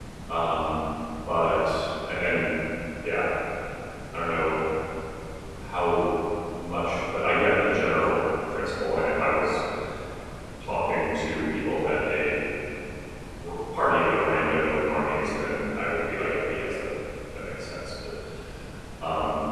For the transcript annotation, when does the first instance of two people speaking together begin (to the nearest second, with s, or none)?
none